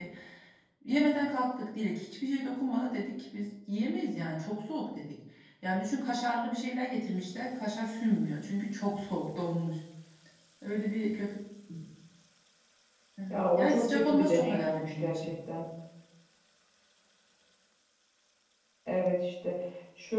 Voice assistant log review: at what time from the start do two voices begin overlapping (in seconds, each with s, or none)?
13.3 s